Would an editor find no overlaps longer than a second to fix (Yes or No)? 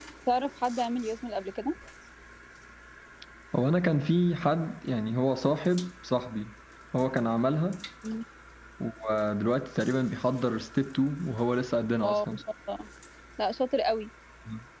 Yes